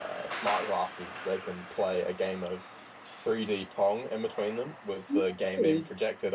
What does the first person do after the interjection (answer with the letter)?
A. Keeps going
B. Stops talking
A